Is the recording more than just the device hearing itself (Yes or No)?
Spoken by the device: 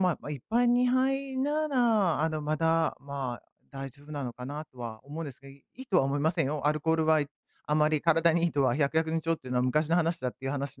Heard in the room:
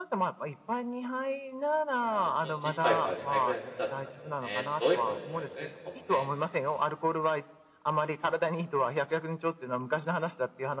Yes